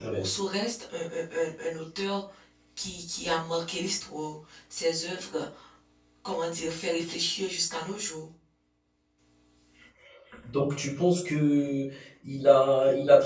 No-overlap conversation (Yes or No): Yes